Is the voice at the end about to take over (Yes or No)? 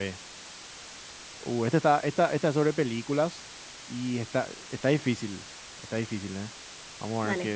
No